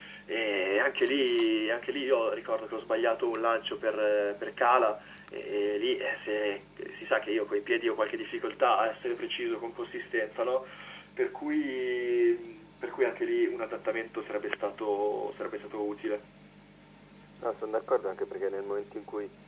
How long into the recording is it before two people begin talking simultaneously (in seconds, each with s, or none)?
none